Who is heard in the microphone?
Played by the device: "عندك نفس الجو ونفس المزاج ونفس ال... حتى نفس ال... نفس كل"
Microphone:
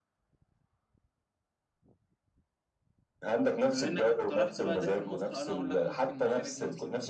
both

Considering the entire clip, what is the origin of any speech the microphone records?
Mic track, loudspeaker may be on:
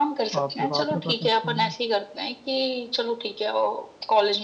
both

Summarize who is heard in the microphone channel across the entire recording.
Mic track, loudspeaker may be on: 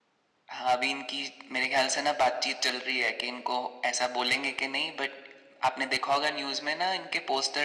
echo only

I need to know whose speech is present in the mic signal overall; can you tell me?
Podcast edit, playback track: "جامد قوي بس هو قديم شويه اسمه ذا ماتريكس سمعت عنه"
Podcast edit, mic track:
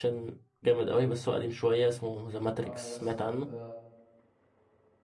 both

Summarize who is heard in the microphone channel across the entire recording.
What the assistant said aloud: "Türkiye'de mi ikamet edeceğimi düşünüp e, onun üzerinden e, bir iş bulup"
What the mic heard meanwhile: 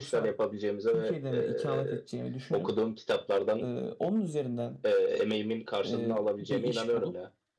both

